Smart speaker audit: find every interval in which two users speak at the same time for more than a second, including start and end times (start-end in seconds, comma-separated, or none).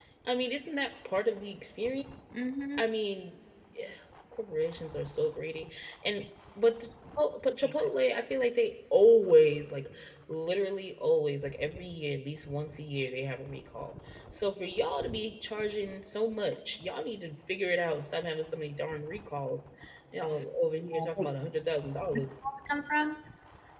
none